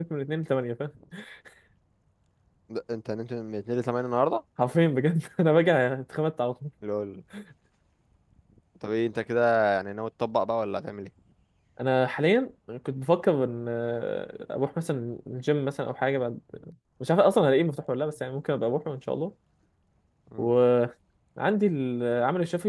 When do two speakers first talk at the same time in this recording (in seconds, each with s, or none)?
none